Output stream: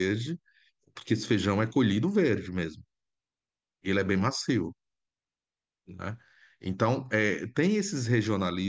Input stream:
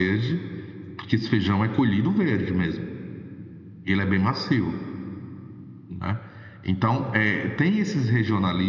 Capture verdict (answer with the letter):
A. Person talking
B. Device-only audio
B